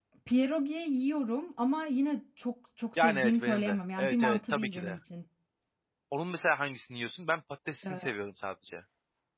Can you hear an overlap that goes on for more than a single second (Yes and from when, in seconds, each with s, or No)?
Yes, from 3.0 s